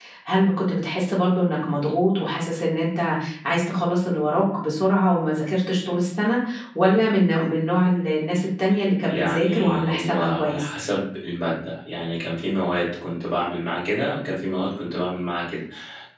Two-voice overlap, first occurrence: 9 s

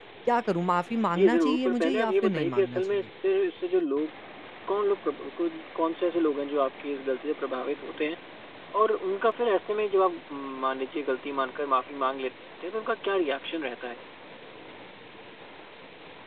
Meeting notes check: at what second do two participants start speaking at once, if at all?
1 s

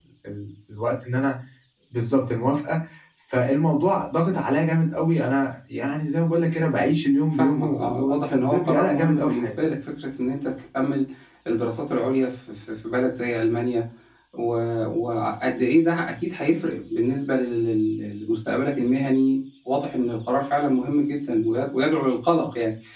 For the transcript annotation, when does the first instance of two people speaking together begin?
7 s

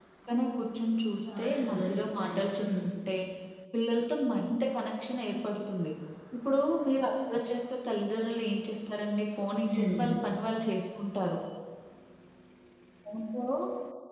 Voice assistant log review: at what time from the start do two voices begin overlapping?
1 s

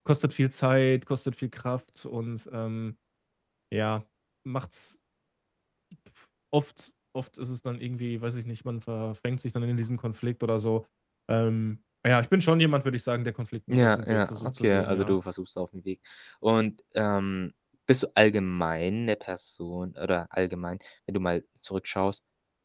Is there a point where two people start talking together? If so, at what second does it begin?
14 s

